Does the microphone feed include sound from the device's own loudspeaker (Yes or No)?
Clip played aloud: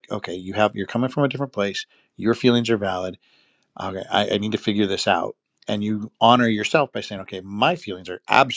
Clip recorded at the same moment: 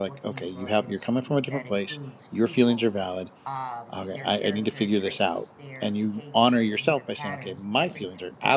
Yes